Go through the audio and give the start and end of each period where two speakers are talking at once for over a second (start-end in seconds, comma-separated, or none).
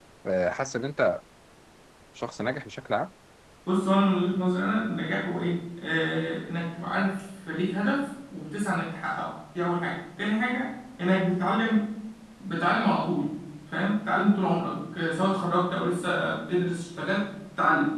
none